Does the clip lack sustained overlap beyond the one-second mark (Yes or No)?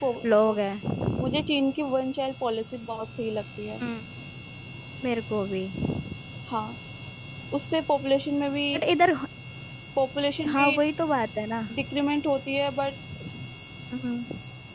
Yes